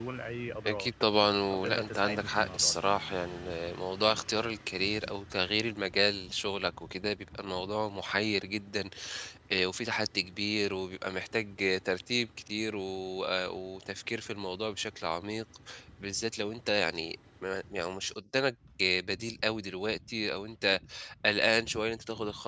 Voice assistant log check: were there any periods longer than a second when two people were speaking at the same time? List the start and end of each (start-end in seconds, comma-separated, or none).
1.5-2.7